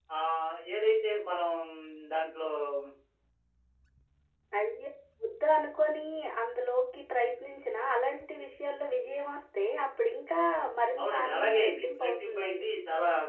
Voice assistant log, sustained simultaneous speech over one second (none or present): present